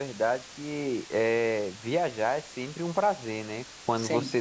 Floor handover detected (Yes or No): No